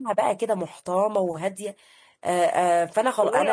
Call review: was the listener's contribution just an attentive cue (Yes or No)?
No